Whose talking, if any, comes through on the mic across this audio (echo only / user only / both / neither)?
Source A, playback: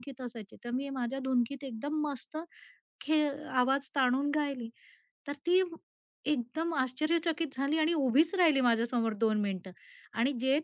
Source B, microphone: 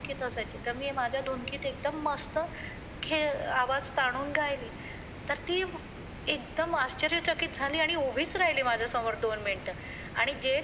echo only